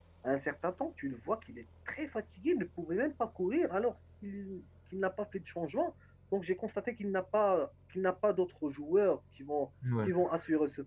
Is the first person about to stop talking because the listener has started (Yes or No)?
No